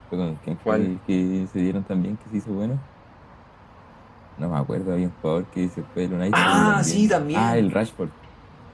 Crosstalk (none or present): present